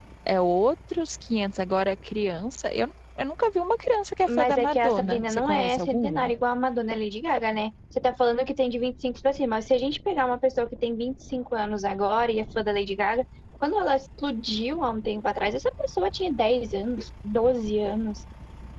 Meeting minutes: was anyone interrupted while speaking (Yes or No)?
Yes